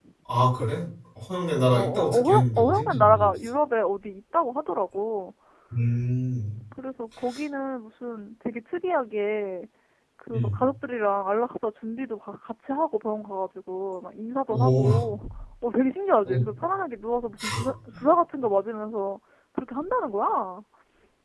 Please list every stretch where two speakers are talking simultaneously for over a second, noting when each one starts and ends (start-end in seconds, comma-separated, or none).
1.7-3.3